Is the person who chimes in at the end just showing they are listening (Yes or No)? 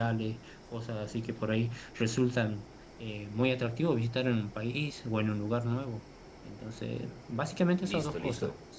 No